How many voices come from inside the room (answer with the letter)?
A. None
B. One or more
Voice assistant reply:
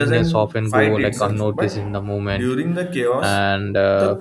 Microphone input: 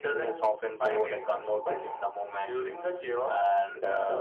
A